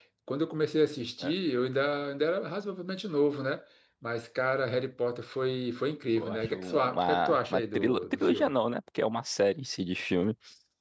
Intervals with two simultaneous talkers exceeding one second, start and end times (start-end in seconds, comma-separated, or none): 6.2-8.5